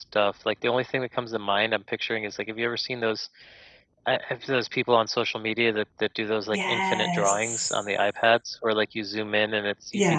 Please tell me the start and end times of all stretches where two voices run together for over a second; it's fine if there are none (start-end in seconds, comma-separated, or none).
6.5-7.7